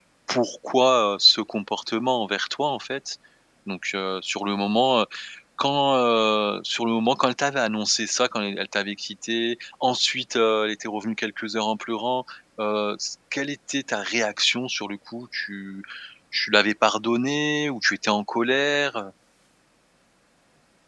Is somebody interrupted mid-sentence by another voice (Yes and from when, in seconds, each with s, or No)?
No